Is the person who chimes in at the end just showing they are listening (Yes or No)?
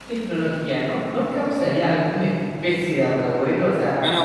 No